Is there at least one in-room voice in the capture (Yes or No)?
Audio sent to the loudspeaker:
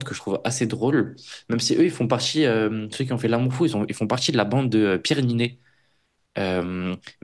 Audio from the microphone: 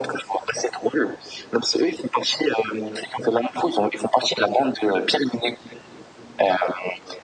No